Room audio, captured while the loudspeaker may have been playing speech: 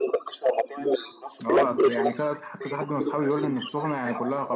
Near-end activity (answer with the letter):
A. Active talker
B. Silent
A